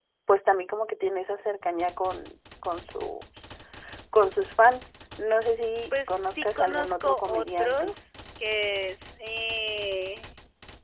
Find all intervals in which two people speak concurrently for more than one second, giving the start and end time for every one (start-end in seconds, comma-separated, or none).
6.1-7.9